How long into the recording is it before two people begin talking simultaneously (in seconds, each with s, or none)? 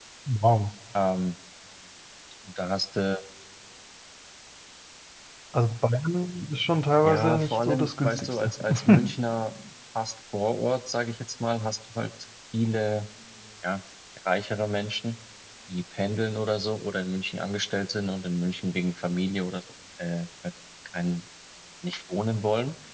7.0 s